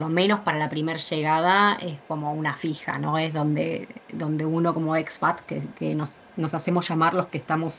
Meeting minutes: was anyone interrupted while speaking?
No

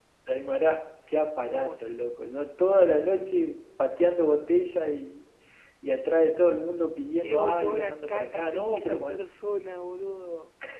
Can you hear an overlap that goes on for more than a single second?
Yes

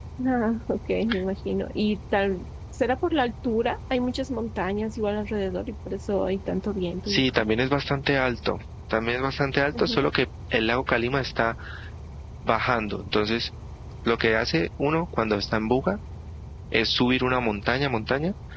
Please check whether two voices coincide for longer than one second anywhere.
No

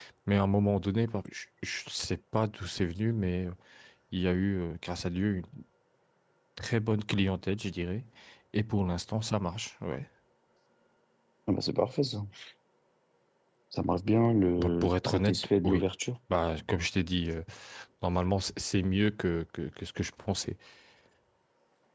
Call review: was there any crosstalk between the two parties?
Yes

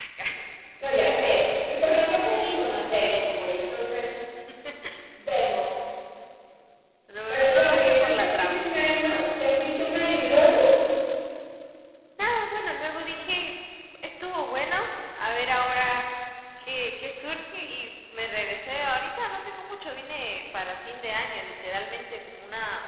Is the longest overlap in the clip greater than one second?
Yes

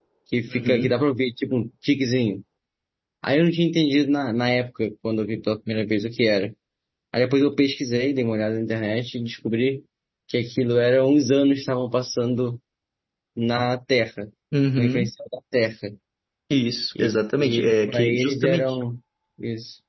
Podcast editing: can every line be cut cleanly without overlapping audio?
No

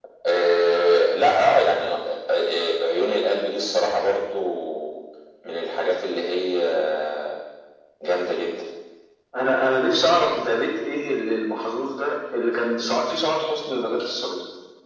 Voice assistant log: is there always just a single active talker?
Yes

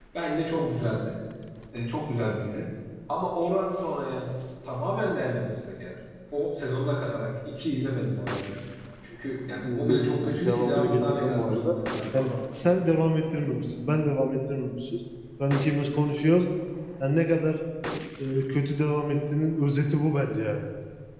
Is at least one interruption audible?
Yes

